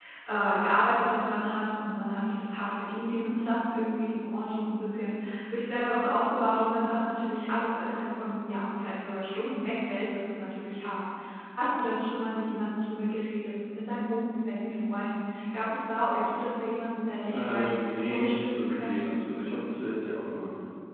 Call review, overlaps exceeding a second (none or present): present